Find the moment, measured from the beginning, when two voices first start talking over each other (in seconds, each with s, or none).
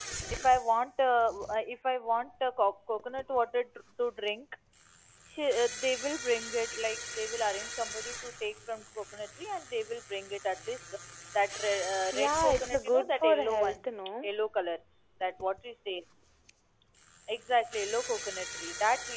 12.1 s